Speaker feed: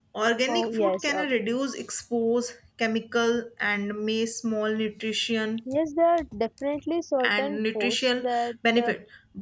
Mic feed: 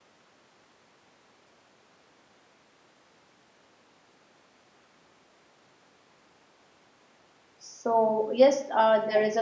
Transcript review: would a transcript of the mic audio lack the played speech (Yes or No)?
Yes